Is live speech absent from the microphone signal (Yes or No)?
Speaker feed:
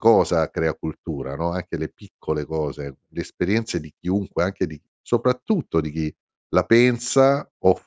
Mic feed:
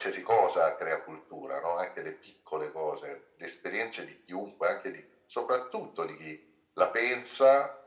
Yes